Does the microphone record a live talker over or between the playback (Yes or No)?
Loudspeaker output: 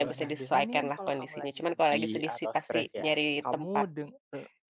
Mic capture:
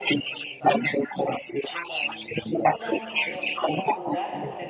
Yes